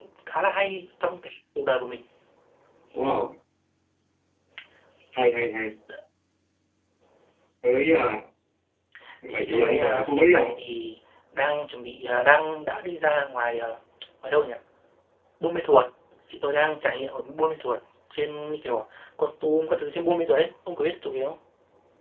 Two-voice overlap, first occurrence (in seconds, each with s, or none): 9.3 s